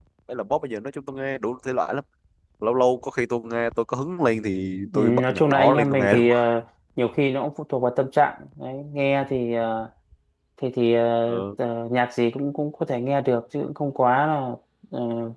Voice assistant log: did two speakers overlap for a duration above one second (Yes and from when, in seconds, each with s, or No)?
Yes, from 4.9 s